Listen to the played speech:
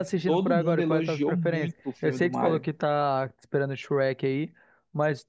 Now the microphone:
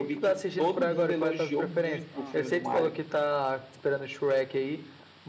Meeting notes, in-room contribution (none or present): present